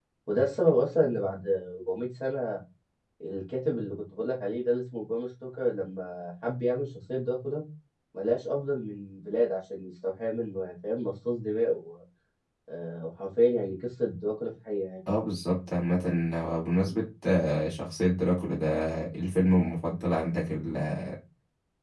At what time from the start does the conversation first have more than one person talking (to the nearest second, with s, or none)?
none